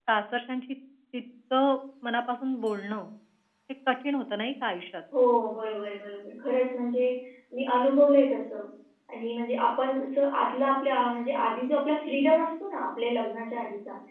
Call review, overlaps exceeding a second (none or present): none